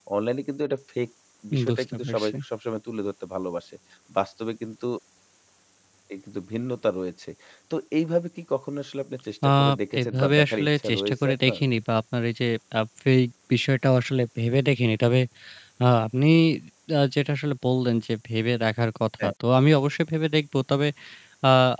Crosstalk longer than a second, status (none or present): present